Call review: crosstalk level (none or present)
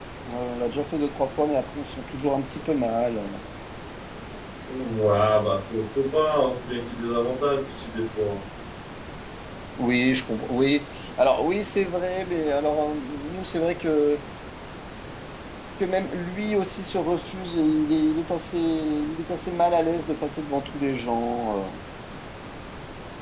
none